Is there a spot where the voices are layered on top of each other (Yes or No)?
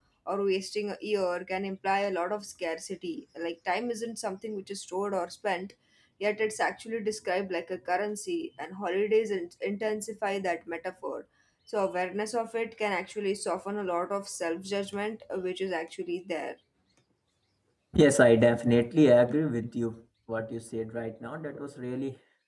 No